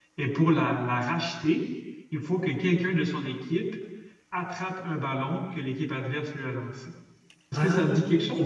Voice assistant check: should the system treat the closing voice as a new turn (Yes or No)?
Yes